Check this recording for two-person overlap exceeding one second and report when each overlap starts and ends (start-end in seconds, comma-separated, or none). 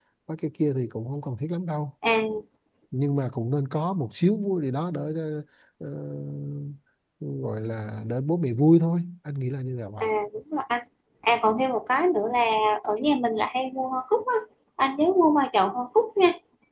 none